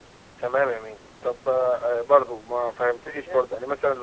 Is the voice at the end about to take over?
No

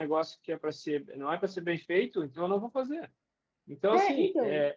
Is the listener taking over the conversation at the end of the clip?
No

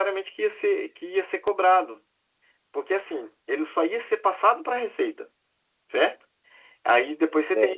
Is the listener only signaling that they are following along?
Yes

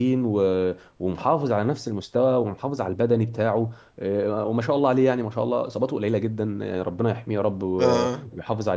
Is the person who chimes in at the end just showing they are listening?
Yes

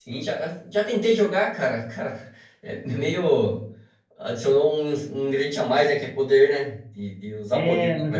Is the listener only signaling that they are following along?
No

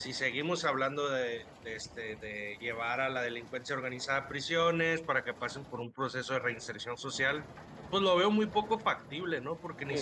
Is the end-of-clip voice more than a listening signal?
No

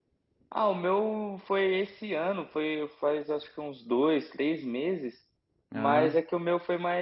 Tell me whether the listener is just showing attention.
Yes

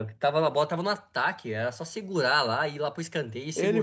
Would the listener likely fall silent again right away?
No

